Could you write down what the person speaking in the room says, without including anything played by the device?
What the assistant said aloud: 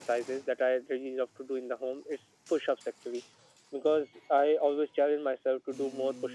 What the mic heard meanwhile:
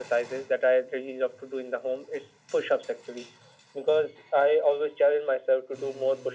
none

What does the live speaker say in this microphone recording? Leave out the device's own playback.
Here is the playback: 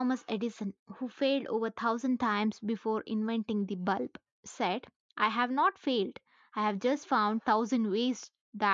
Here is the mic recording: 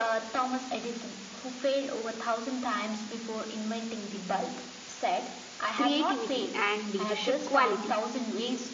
creativity, and leadership quality

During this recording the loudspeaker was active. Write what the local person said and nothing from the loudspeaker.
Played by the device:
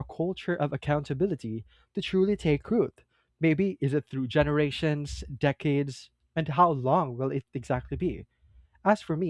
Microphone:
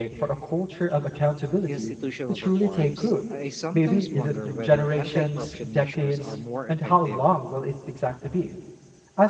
institutional reforms, I sometimes wonder whether anti-corruption measures are more effective

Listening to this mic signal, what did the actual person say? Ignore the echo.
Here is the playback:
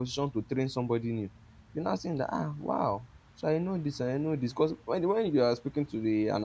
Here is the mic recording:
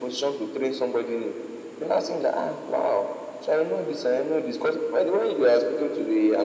none

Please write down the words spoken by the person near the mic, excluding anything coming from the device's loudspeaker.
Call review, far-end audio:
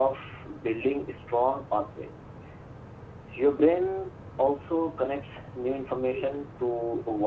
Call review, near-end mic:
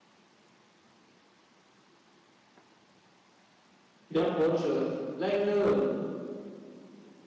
yeah for sure like um

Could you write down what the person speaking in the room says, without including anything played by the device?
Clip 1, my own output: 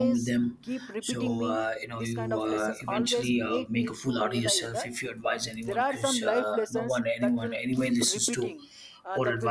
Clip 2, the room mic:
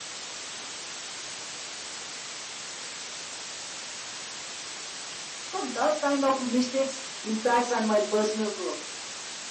So, those kind of mistakes impacts on my personal growth.

